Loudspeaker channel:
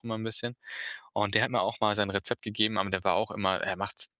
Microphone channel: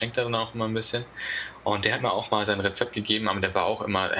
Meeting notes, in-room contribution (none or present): none